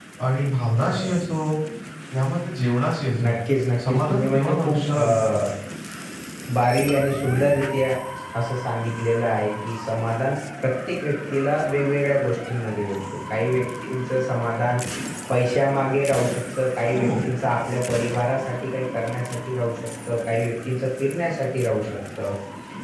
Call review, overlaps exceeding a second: present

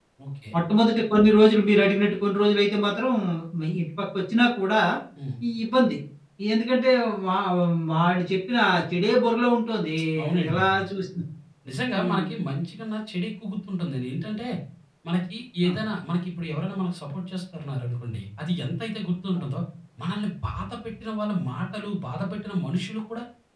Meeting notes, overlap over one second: none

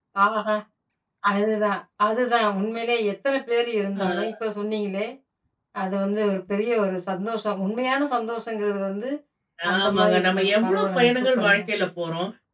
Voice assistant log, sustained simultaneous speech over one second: present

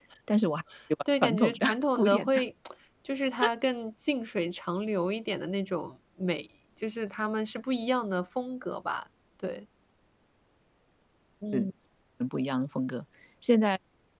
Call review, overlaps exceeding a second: present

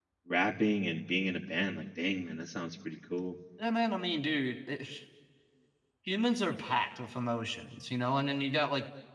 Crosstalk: none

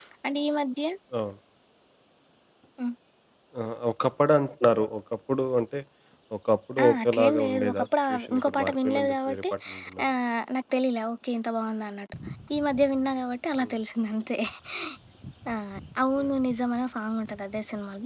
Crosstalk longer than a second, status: present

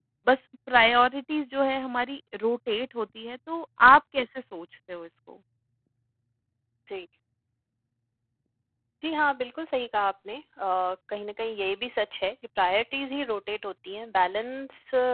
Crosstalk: none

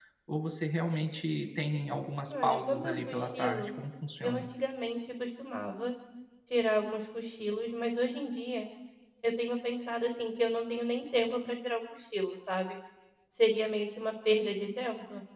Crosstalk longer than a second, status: present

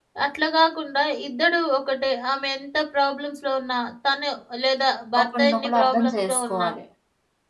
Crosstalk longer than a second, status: present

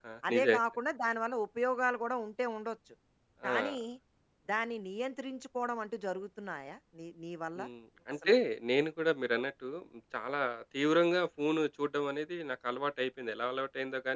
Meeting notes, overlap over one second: none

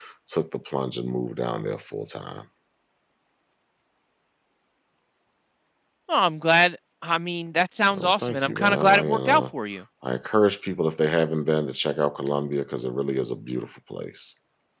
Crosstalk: present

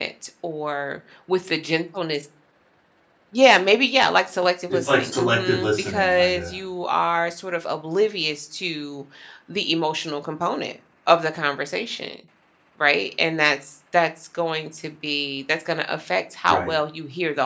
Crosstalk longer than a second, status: present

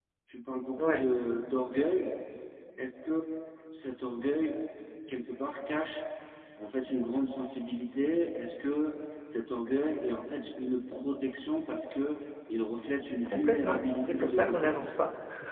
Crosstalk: present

